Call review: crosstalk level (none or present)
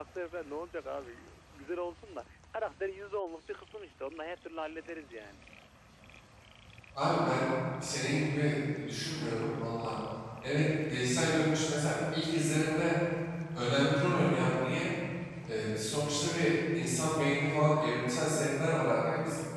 none